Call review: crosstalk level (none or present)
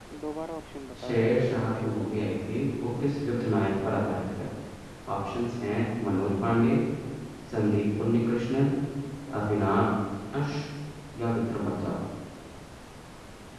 present